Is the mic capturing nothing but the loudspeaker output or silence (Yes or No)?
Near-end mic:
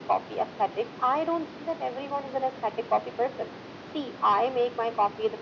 Yes